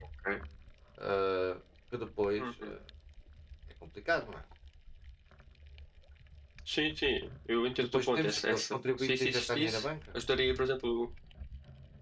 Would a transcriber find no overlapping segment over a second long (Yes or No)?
No